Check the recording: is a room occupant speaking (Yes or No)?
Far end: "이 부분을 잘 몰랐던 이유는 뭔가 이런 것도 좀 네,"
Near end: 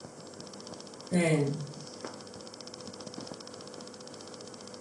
Yes